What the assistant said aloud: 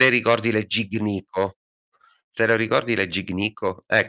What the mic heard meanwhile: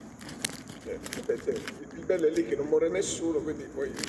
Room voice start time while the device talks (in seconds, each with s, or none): 0.8 s